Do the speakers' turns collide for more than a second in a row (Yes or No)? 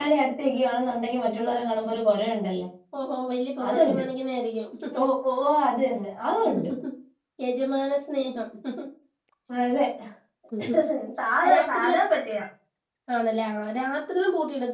No